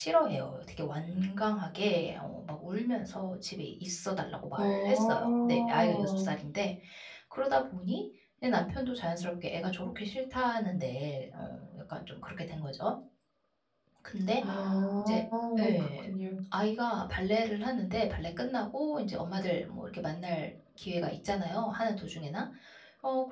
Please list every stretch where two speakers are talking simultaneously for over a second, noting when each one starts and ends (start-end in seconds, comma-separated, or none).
4.6-6.3